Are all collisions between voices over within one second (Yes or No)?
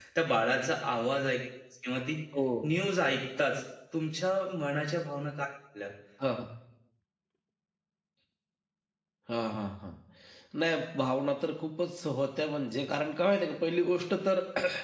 Yes